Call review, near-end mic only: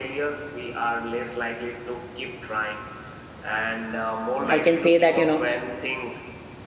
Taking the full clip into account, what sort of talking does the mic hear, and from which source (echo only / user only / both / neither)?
both